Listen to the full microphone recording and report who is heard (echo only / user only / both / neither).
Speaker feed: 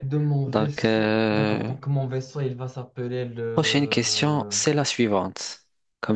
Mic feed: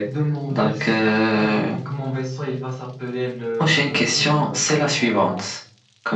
both